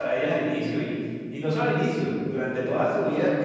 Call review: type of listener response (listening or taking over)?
listening